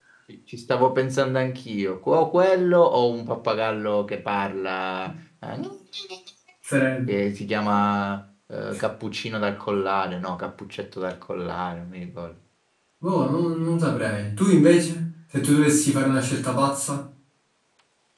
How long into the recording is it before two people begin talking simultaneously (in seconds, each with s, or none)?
none